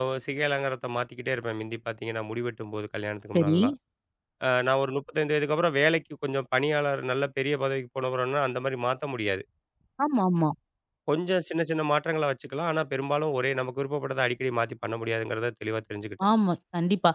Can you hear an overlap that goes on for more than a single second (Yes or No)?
No